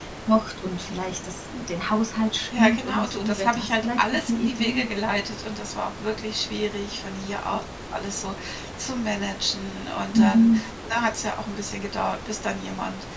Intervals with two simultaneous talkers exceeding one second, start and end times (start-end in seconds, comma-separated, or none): 2.6-4.9